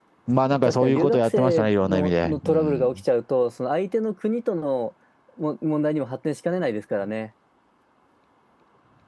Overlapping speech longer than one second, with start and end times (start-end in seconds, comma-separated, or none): 0.6-3.0